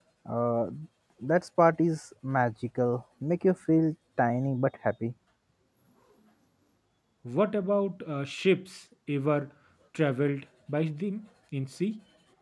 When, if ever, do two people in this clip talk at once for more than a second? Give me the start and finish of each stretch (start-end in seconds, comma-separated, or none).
none